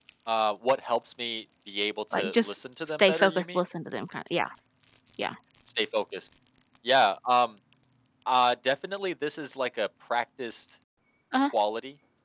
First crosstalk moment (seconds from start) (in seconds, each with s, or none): 2.1 s